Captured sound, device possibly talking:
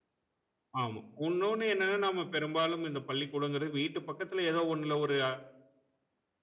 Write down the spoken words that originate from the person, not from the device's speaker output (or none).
ஆமா. இன்னொன்னு என்னன்னா நம்ம பெரும்பாலும் இந்த பள்ளிக்கூடங்கிறது வீட்டு பக்கத்தில ஏதோ ஒண்ணுல ஒரு